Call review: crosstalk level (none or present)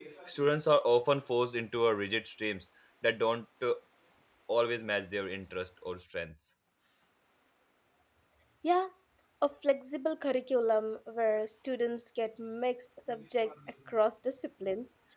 none